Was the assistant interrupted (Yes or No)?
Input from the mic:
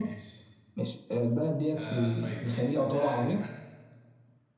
Yes